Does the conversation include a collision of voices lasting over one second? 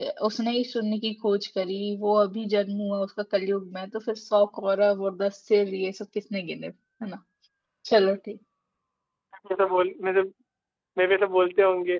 No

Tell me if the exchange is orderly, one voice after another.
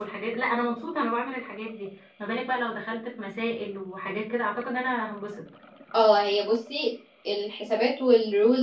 Yes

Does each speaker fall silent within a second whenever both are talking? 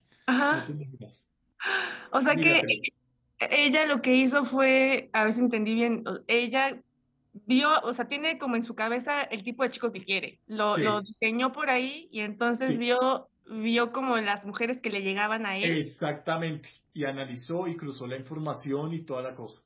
Yes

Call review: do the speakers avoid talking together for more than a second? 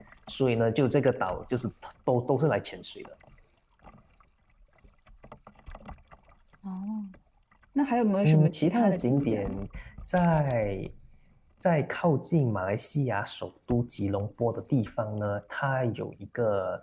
No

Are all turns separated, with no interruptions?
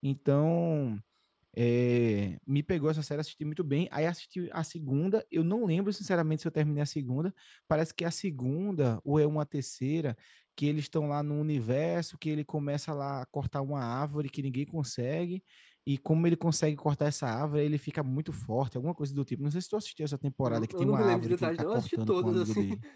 No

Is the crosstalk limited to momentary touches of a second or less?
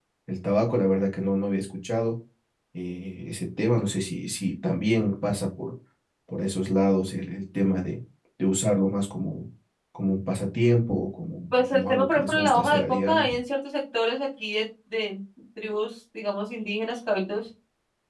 No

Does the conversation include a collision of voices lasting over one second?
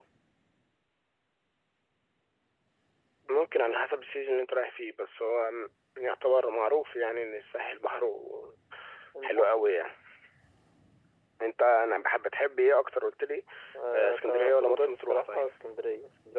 Yes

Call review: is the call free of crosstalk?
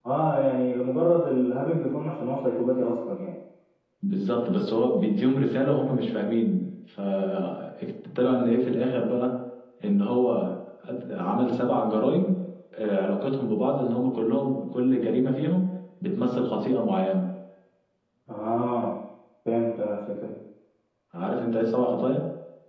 Yes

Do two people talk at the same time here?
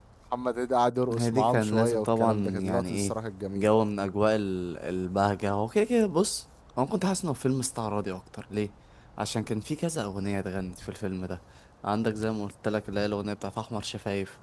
Yes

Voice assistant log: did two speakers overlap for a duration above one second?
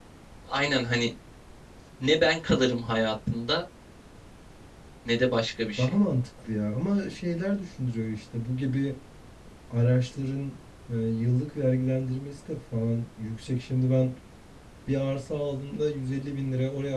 No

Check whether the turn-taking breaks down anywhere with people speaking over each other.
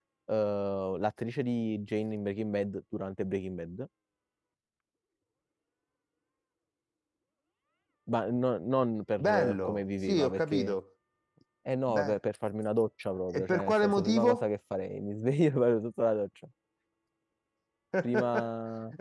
Yes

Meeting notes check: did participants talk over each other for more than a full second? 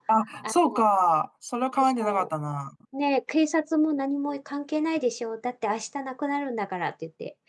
No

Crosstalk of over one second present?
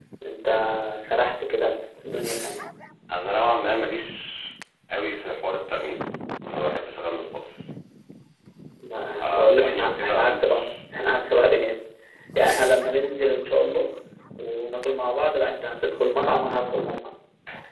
Yes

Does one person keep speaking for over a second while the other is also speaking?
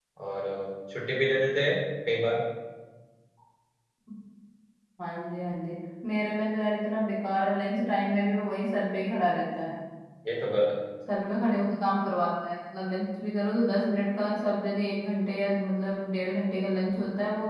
No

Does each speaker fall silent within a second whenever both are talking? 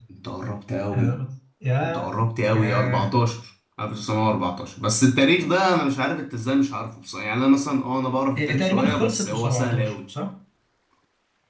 No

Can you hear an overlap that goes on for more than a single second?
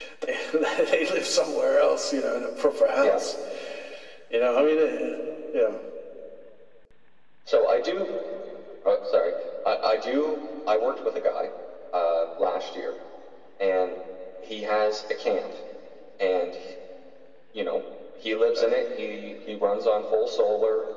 No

